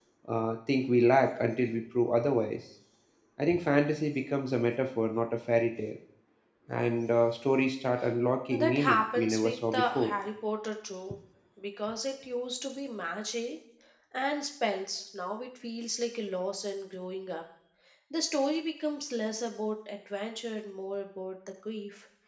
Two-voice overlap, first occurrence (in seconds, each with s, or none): 8.6 s